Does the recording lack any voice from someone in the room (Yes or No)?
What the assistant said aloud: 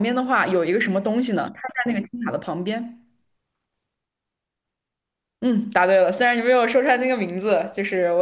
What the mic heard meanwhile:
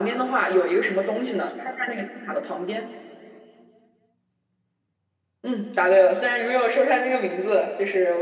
Yes